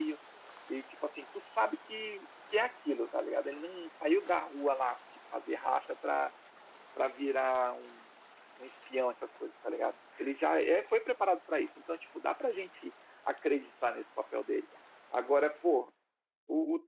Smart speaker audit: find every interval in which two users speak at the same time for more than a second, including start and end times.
none

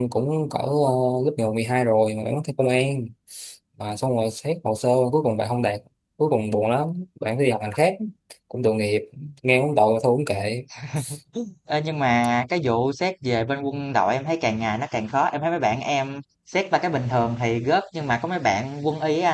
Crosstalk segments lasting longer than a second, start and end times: none

